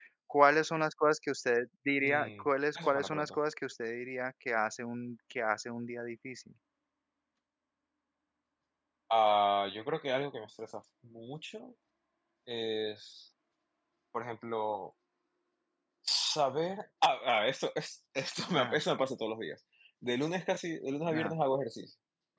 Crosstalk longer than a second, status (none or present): present